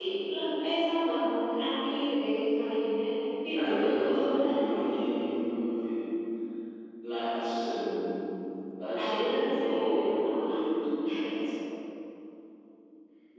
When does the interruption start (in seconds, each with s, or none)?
3.6 s